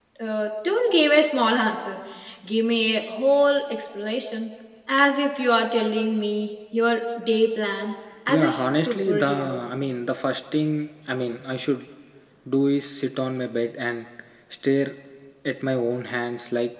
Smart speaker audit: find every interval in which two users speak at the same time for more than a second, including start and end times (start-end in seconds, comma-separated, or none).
8.3-9.6